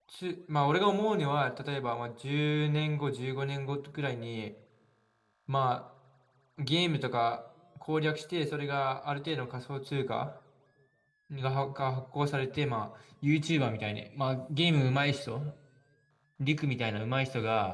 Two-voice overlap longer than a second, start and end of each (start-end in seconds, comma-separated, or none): none